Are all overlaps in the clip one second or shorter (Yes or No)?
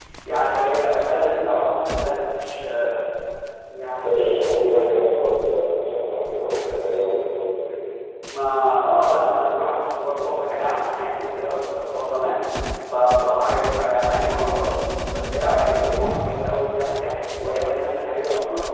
Yes